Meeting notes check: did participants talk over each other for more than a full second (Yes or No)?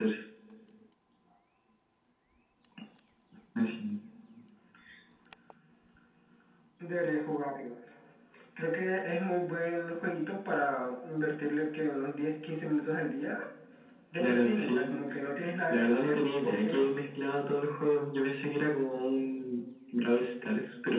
Yes